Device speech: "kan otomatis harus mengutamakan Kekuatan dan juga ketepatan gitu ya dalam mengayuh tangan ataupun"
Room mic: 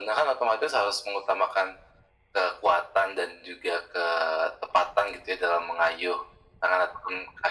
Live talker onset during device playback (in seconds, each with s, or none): none